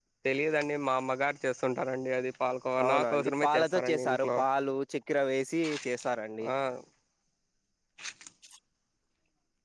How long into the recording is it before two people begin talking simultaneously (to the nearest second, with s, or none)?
3 s